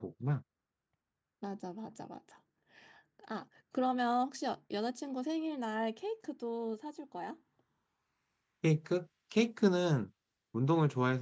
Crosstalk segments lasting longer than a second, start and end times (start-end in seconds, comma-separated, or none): none